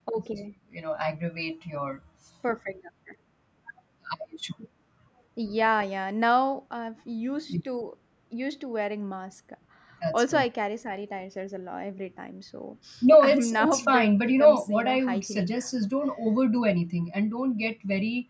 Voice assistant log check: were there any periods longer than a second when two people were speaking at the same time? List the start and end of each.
13.2-15.6

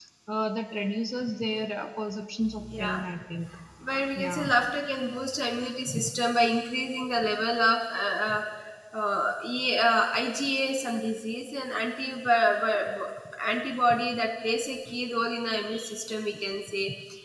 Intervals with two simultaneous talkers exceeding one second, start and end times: none

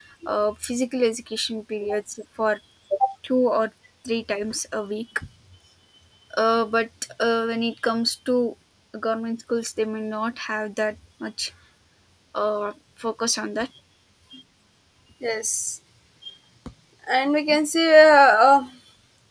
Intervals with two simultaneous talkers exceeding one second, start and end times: none

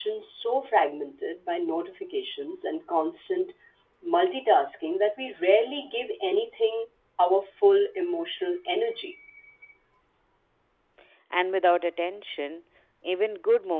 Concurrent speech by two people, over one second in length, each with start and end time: none

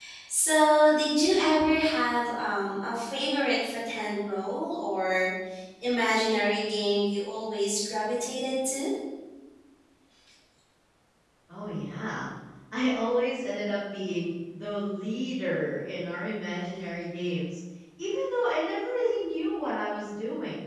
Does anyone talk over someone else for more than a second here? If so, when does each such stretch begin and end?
none

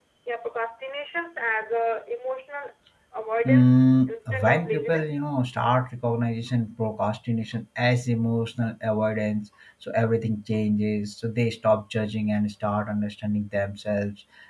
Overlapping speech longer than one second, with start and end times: 3.4-5.2

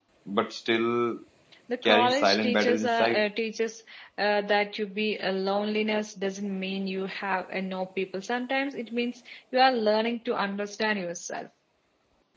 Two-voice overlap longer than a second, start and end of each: 1.8-3.2

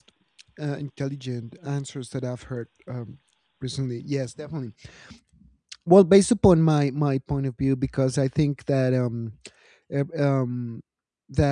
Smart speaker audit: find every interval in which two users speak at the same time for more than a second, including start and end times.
none

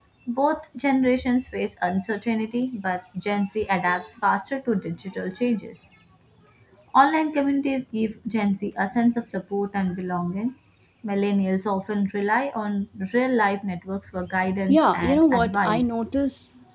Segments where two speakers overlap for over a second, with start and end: 14.7-15.9

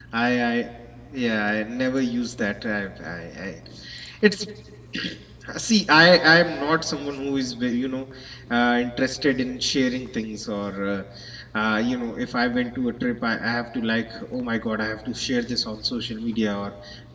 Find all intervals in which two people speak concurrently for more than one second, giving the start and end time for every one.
none

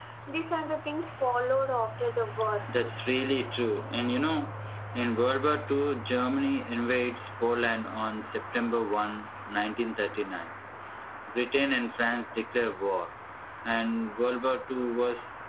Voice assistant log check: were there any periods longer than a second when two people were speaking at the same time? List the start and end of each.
none

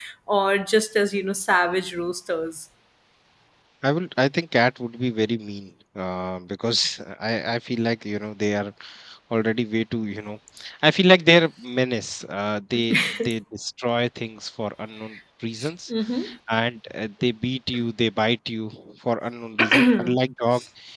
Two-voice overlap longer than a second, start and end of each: none

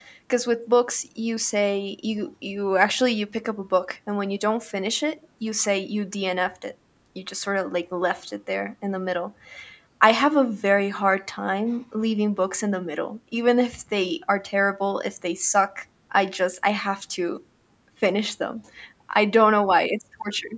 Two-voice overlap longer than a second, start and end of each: none

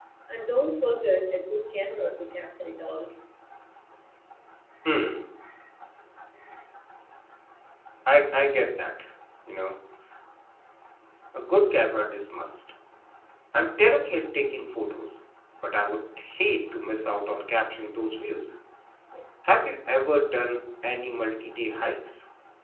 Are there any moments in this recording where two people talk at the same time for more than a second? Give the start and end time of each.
none

